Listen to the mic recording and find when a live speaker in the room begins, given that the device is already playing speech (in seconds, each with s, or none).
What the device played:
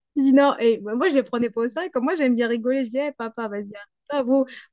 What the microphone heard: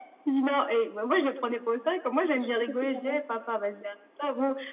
2.3 s